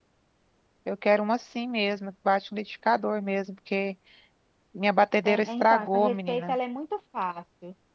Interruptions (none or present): present